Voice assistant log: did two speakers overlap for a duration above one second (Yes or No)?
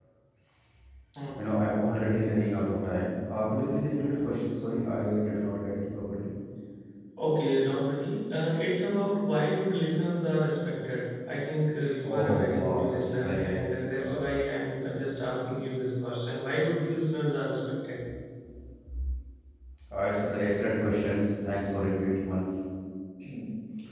Yes